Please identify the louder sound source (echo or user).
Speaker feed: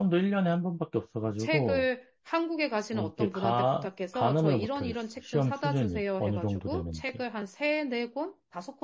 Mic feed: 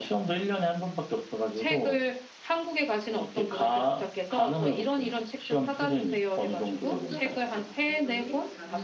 echo